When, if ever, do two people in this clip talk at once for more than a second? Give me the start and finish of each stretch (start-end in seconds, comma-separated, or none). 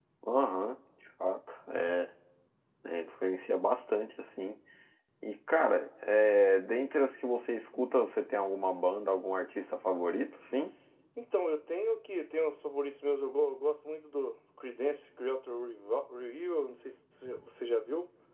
none